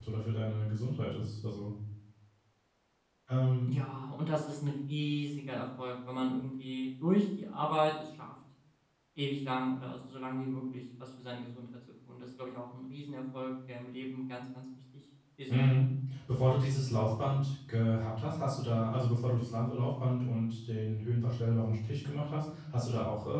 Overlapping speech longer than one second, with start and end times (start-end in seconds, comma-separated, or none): none